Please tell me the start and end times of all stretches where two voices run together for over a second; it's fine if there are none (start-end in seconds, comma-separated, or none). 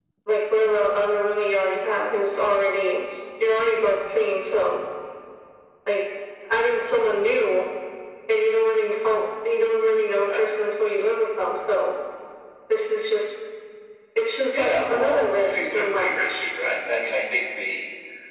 14.5-16.4